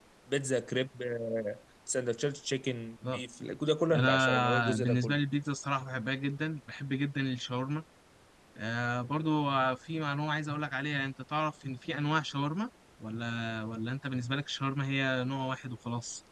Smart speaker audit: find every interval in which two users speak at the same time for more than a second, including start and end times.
3.9-5.2

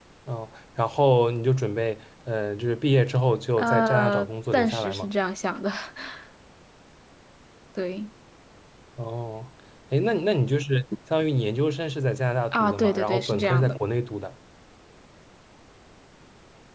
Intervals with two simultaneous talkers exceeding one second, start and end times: 3.6-5.1, 12.5-13.8

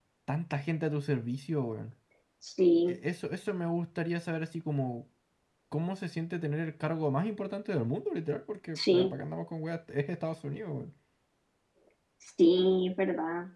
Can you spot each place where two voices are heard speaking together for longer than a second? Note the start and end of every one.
none

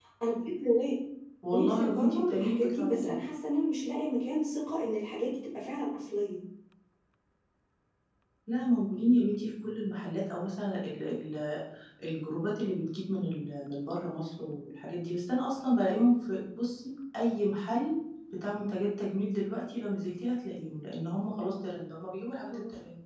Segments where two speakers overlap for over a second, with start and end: 1.5-3.2

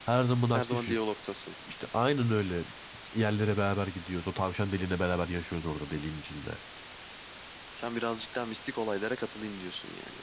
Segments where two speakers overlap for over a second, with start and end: none

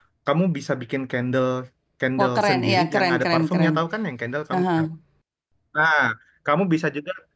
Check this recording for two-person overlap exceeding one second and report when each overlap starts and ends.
2.2-3.7

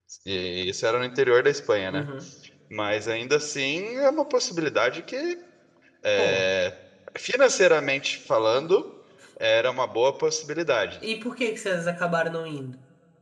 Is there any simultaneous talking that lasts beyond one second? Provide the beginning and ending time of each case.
none

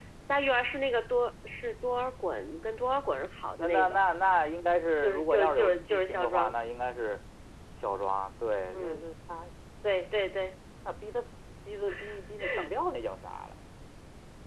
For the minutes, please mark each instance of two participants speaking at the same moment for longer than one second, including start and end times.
5.0-6.6

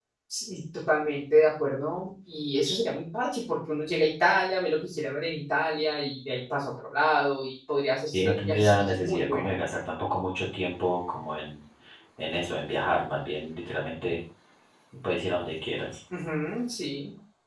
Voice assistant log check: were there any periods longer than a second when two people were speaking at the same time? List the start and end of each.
8.1-9.6

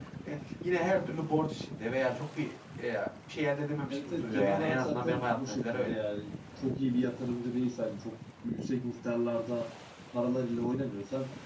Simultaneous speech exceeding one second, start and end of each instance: 3.9-6.0

